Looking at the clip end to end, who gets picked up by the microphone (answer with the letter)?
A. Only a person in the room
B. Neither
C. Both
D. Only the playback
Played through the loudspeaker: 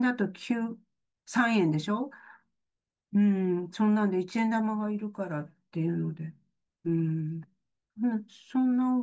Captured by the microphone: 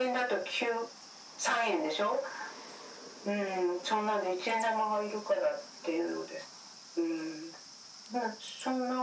D